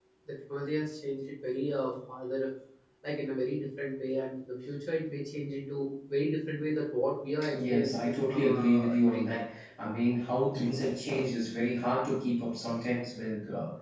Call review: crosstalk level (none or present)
present